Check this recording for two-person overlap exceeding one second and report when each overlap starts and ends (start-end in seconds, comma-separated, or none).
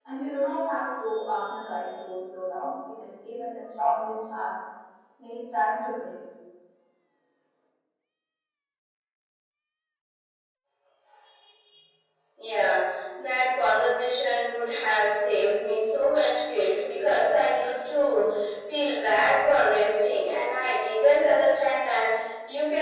none